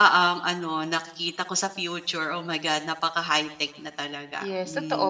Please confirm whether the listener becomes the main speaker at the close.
Yes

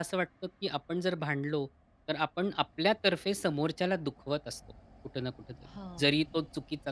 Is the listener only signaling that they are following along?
Yes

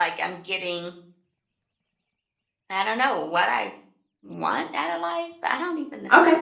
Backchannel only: No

